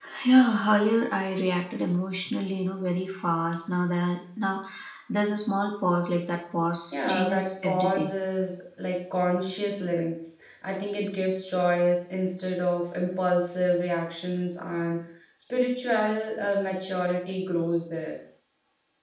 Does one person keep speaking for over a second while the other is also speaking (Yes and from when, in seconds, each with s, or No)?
Yes, from 6.9 s